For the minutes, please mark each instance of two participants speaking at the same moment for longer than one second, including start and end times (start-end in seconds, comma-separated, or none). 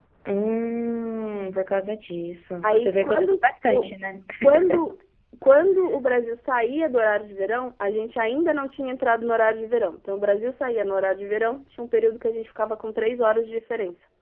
2.6-3.9